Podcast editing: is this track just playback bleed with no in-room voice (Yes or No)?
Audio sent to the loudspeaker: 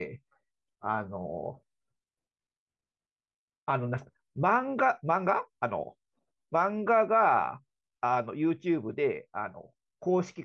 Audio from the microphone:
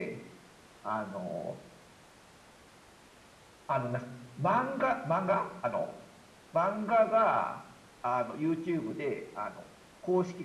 Yes